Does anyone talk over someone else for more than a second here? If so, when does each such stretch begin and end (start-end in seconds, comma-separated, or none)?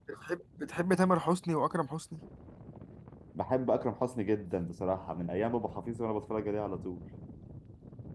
none